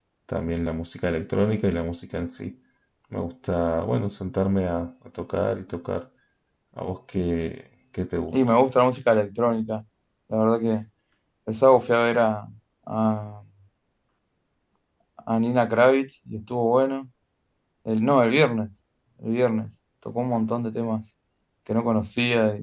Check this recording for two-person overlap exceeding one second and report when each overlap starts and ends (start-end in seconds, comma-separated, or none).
none